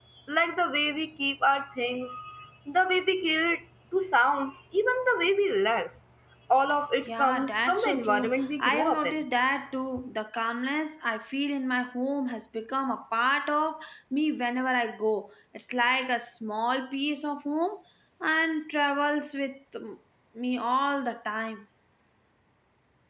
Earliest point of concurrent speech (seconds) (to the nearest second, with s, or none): 7 s